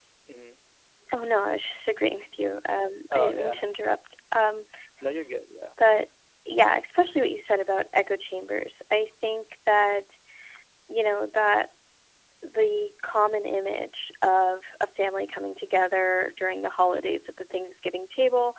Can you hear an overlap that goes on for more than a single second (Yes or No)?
No